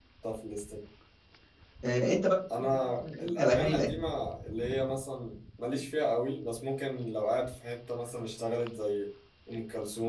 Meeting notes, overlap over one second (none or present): present